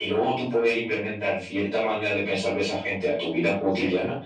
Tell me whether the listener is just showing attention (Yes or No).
Yes